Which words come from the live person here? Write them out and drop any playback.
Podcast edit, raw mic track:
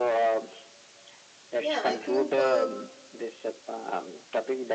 yeah i think uh,

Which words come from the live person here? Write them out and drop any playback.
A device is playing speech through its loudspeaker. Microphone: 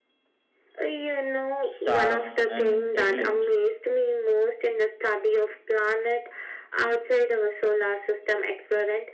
stars, and eclipses,

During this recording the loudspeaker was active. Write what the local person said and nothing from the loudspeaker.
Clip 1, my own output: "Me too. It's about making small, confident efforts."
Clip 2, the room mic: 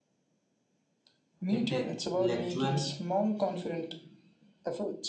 intellectual

